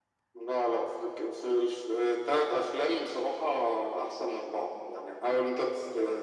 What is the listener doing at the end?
listening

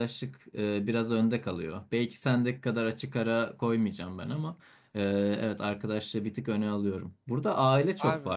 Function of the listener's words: listening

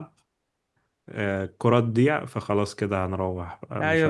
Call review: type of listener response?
taking over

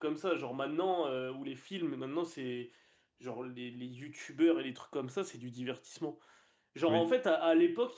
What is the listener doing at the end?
listening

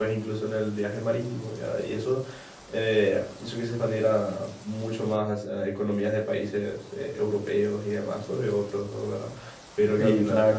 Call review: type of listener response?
listening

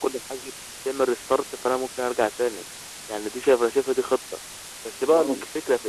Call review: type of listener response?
listening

